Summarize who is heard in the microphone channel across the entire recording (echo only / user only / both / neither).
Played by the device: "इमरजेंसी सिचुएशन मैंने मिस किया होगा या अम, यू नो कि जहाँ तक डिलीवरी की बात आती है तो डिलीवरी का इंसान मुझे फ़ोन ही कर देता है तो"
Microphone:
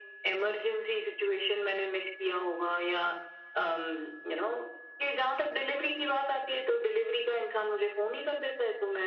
echo only